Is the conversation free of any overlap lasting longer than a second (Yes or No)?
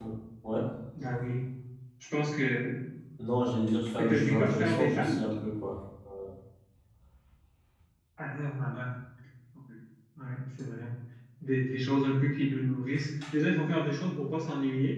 No